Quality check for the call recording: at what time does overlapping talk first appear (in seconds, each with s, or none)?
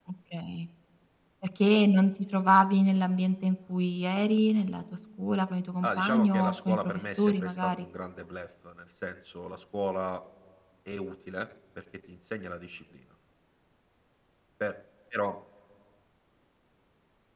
5.8 s